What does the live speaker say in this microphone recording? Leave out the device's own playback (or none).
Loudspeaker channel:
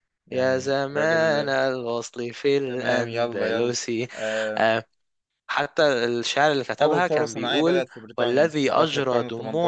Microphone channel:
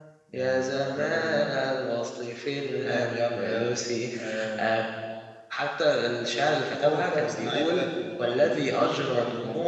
none